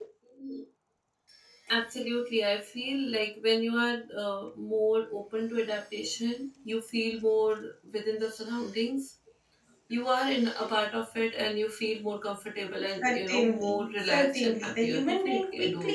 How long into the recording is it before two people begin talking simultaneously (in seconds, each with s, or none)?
13.0 s